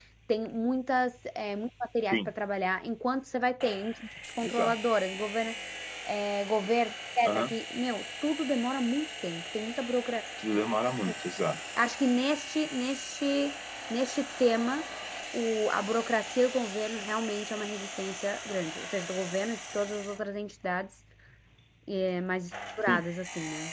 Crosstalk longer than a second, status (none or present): none